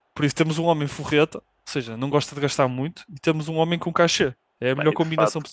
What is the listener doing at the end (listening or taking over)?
taking over